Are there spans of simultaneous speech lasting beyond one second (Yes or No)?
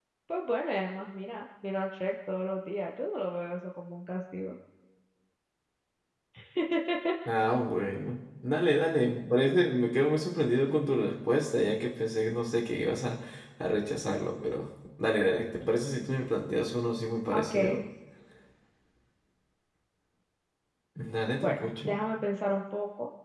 No